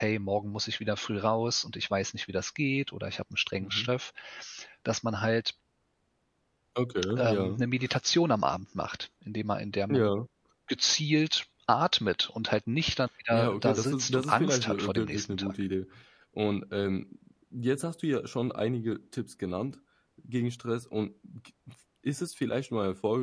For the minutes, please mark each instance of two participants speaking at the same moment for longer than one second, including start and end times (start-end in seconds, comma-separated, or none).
13.3-15.5